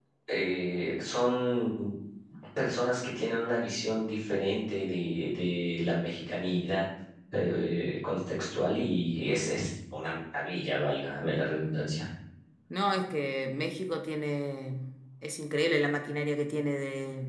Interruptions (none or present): none